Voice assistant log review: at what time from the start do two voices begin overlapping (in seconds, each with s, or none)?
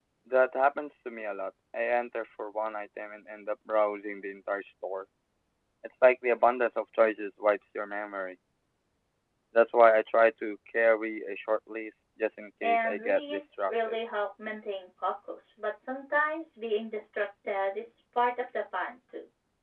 12.6 s